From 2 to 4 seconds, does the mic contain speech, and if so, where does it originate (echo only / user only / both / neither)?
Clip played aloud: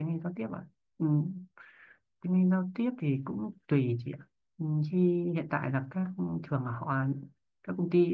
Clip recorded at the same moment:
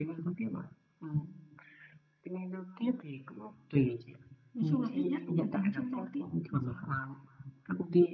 echo only